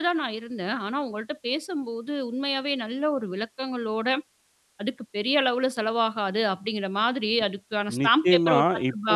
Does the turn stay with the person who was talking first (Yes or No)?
No